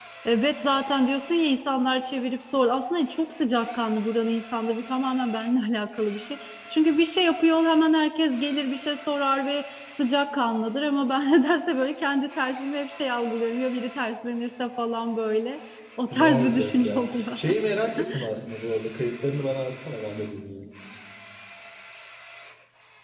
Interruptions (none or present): present